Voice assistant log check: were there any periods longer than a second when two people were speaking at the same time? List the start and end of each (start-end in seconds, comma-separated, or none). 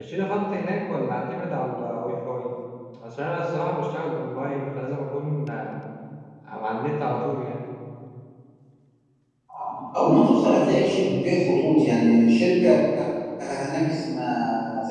none